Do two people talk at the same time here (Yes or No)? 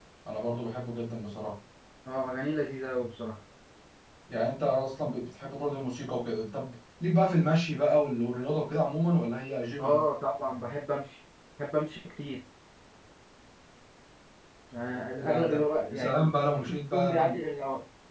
Yes